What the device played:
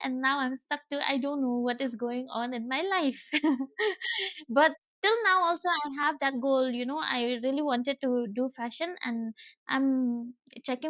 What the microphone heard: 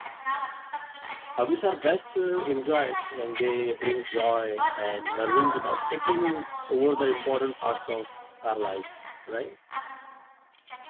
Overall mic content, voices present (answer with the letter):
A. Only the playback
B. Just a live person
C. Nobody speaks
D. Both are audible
D